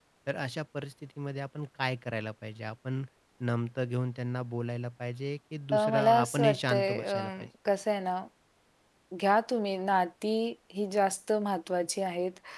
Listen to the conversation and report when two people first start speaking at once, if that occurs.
5.7 s

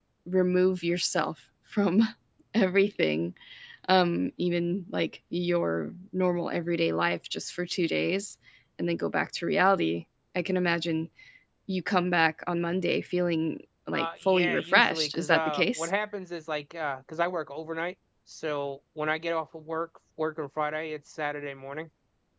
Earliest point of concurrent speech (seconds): 13.9 s

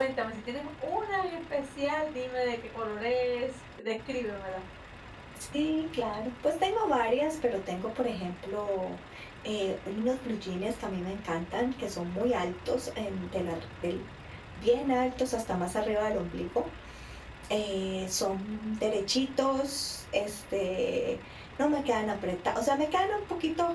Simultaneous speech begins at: none

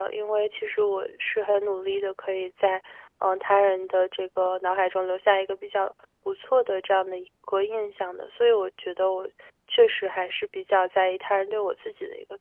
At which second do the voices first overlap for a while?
none

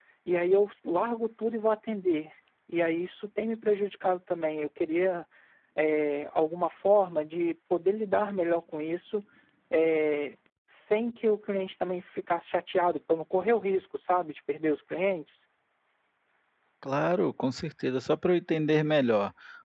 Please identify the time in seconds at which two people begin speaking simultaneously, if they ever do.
none

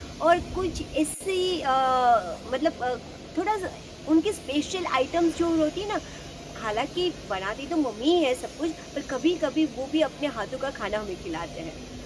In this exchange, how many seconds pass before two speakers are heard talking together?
none

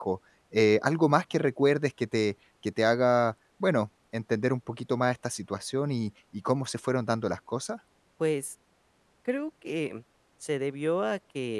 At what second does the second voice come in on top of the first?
none

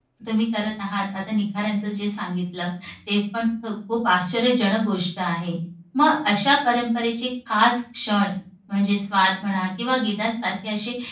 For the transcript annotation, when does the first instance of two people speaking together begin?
none

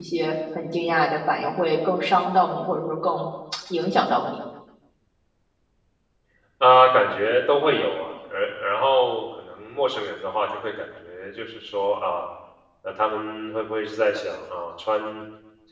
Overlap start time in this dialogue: none

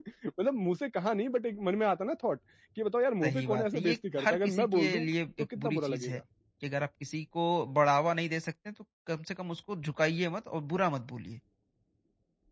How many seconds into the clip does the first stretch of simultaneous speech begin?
3.2 s

